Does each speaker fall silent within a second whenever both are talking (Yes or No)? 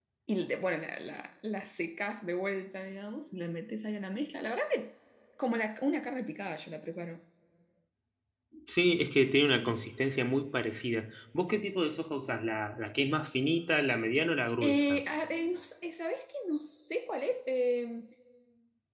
Yes